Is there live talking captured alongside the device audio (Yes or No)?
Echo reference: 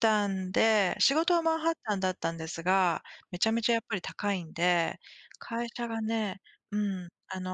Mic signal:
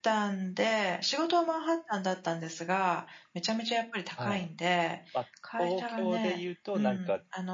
Yes